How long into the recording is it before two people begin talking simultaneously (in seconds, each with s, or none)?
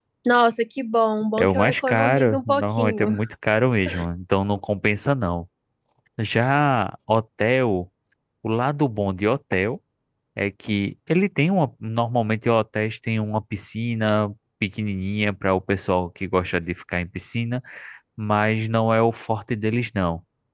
1.4 s